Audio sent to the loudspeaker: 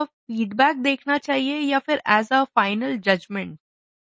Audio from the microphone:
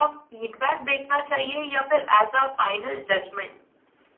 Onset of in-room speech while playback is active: none

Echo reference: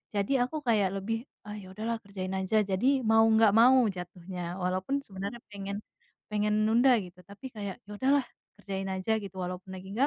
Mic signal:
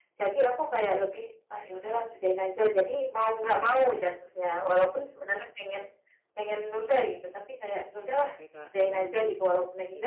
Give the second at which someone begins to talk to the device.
6.9 s

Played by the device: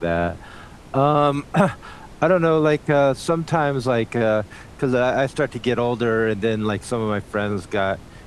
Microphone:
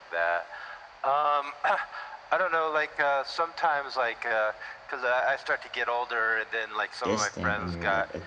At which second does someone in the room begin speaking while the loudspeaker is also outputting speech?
7.0 s

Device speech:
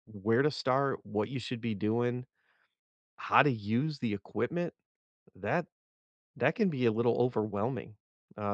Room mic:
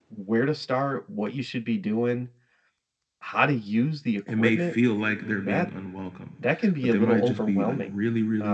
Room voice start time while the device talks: 4.2 s

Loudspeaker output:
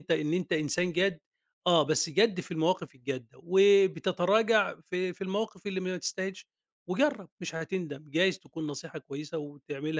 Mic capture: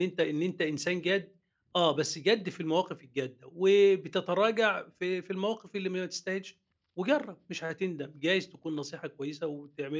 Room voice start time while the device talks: none

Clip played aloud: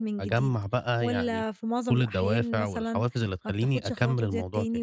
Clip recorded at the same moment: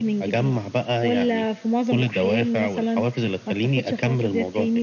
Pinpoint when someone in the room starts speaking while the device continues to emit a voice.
none

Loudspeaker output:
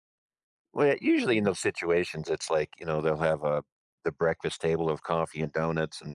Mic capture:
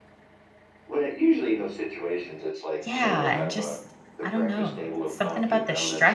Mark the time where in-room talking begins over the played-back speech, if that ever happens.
2.8 s

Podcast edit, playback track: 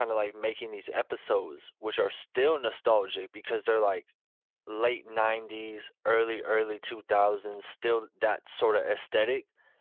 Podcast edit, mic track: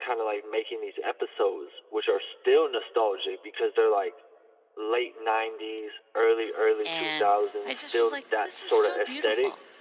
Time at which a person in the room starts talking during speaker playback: 6.8 s

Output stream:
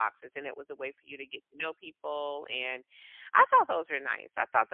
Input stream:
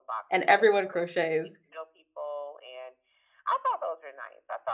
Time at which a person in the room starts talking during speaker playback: 0.3 s

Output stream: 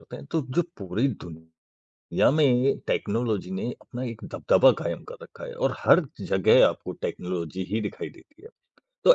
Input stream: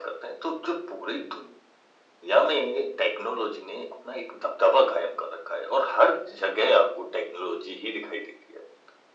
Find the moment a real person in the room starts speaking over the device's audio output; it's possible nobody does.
none

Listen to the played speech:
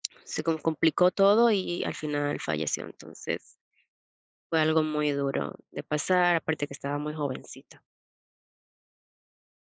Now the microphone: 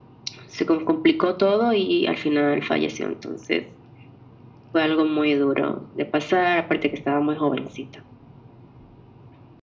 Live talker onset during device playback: none

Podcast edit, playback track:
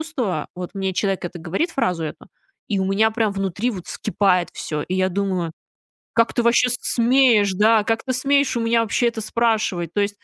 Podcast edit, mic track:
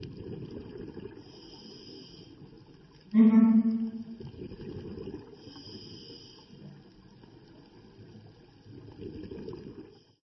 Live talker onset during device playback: 3.1 s

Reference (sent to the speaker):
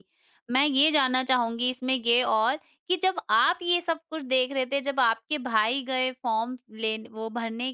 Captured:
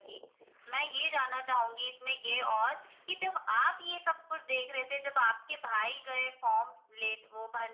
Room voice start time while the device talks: none

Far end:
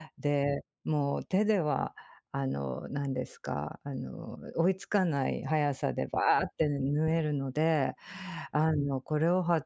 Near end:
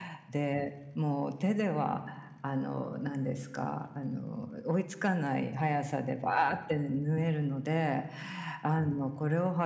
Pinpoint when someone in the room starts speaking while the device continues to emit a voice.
none

